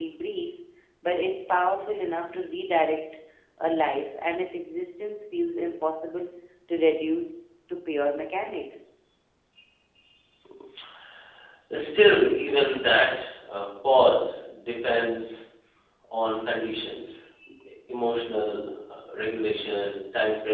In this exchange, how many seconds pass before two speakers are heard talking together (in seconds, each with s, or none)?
none